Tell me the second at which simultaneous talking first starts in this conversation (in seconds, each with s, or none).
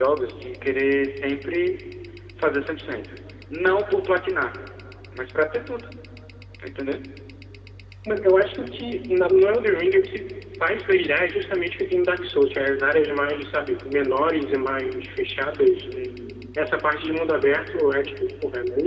none